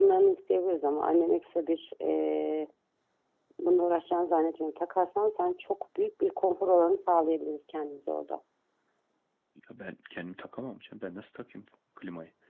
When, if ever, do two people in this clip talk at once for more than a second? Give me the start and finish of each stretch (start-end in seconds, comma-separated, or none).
none